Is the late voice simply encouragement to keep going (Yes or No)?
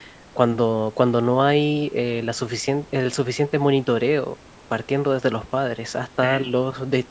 Yes